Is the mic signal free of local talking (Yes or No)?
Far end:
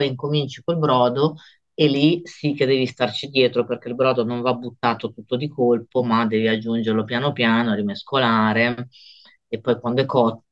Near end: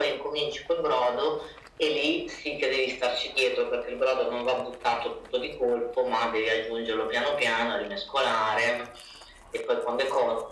Yes